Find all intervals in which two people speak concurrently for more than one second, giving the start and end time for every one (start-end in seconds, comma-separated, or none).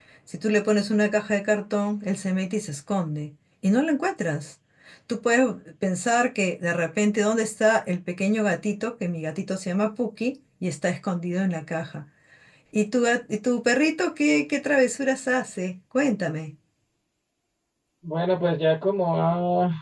none